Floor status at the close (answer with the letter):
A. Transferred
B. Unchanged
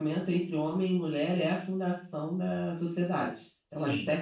B